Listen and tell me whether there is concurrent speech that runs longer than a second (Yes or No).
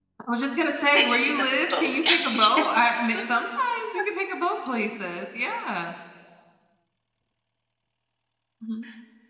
Yes